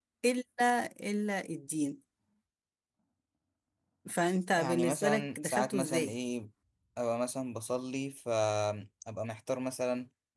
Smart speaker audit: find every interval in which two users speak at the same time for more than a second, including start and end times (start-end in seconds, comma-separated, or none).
4.6-6.1